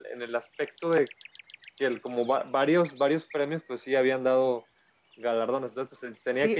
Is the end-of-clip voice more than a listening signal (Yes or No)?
Yes